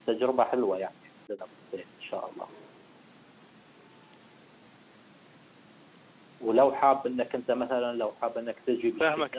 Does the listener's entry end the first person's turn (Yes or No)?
Yes